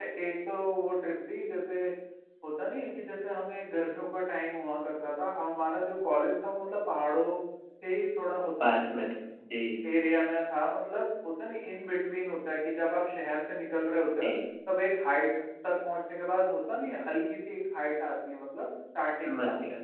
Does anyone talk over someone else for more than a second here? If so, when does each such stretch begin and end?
none

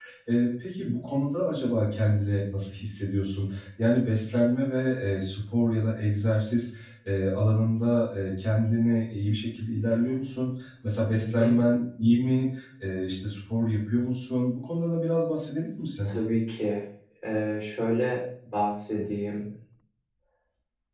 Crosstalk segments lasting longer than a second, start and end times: none

